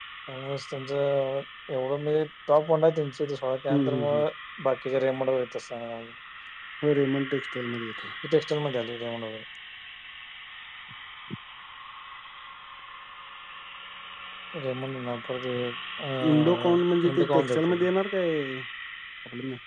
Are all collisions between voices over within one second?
No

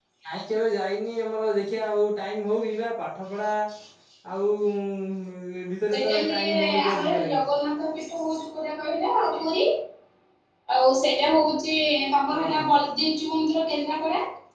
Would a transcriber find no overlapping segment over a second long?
No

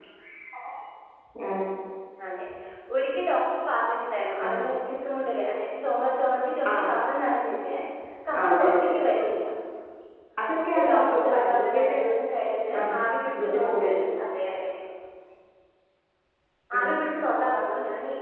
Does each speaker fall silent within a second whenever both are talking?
No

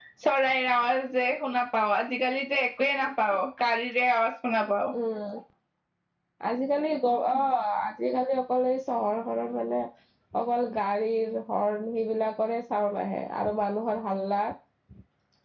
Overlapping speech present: No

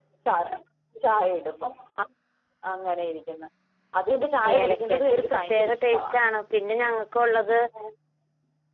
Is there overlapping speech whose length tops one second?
Yes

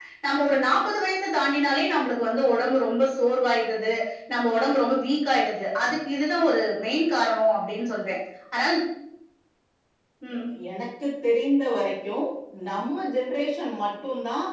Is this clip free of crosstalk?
Yes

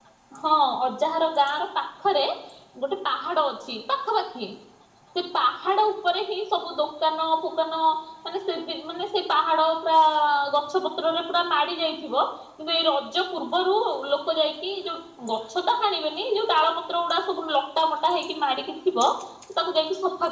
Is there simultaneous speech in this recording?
No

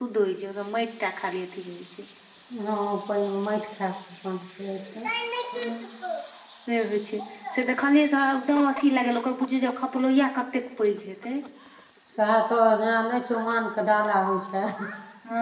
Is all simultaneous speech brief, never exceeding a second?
Yes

